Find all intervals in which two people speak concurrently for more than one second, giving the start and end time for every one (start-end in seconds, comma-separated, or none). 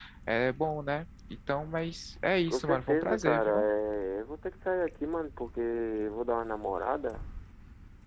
2.5-3.7